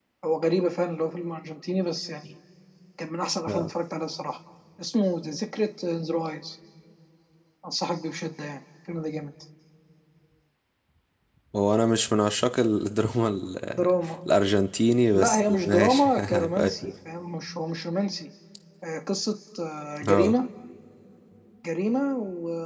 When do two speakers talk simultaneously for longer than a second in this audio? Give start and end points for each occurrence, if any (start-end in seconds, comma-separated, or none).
15.1-16.9